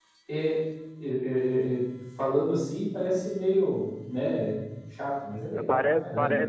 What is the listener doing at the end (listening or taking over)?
taking over